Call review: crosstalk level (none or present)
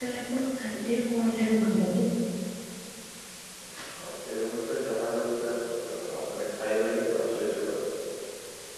none